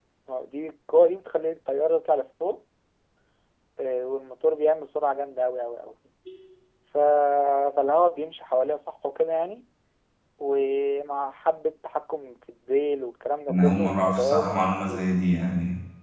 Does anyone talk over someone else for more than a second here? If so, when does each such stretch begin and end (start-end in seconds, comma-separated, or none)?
13.5-15.1